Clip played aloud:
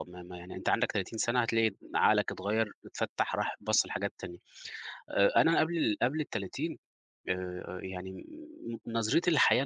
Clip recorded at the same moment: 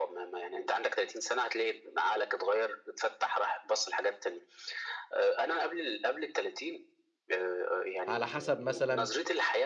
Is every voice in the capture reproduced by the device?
No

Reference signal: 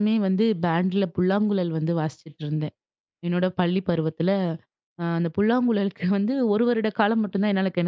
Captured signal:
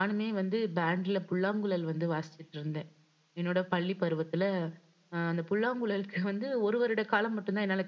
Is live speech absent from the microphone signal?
Yes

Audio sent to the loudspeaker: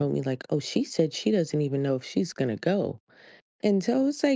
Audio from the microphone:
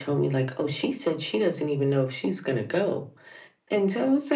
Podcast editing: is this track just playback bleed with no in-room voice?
Yes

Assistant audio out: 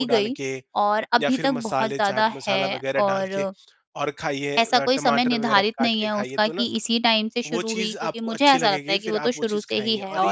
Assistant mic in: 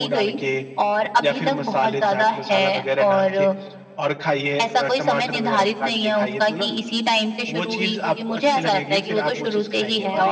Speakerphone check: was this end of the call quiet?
Yes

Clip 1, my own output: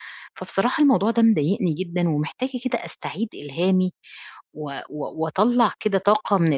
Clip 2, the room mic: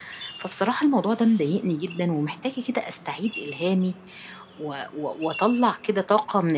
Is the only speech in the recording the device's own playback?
Yes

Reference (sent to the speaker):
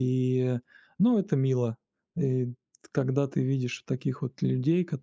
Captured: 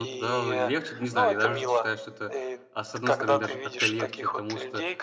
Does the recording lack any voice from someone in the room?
No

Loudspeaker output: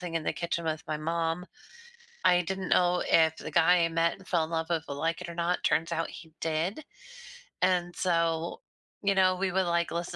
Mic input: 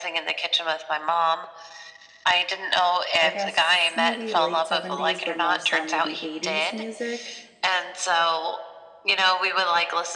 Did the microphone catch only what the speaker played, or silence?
No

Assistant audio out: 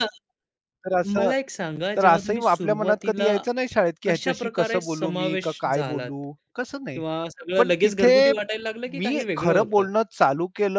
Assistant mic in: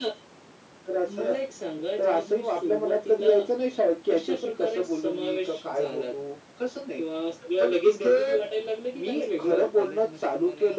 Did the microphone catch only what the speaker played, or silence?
No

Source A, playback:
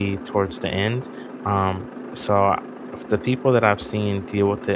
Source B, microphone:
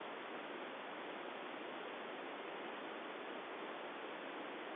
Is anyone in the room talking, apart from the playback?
No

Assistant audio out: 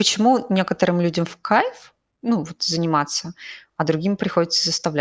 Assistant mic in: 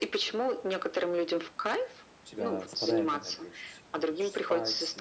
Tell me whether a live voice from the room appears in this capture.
Yes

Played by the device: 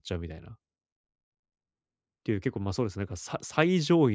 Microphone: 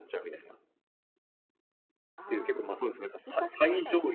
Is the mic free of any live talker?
No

